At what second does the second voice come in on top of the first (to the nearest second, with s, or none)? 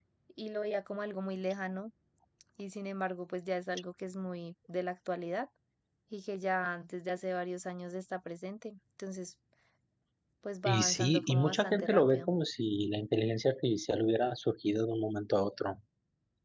11 s